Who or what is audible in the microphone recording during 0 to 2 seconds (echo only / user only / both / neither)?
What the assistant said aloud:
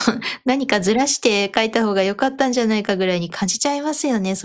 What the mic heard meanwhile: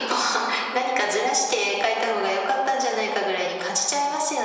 echo only